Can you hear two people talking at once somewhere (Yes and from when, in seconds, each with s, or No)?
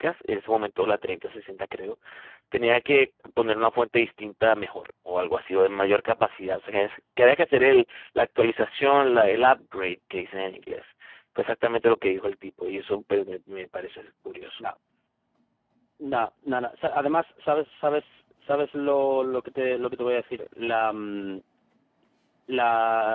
No